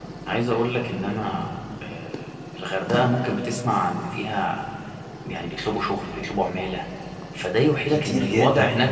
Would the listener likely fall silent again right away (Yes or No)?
Yes